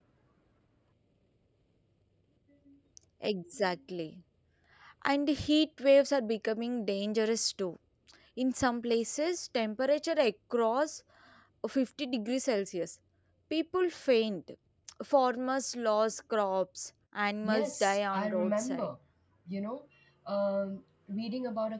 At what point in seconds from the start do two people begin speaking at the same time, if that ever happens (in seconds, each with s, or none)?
17.4 s